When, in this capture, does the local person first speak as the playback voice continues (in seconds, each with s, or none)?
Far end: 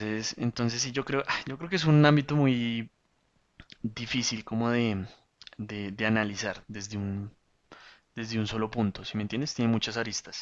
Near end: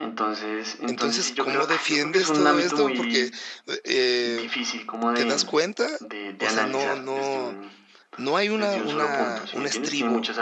0.8 s